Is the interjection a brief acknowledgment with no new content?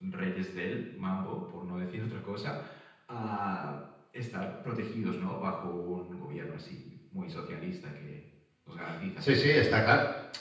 No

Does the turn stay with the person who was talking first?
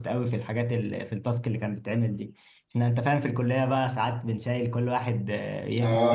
No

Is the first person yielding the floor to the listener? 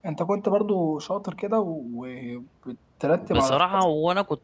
Yes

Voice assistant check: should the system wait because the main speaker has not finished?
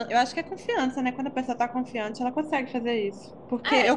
Yes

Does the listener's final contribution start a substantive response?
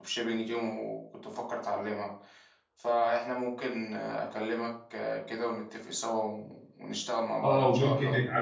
Yes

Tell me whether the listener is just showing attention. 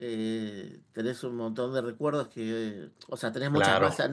Yes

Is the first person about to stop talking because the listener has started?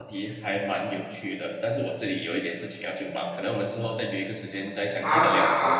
Yes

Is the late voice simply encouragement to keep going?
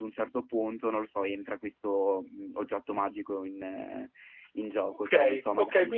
No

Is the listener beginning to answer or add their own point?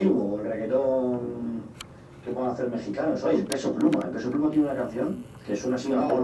No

